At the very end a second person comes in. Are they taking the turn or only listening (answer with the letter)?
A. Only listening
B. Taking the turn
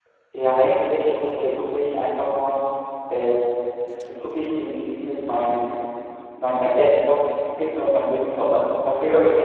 A